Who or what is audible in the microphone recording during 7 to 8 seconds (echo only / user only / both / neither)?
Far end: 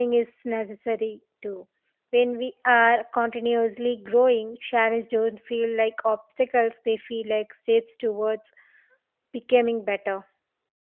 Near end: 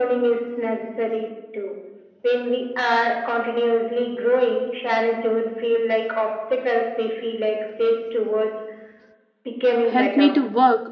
echo only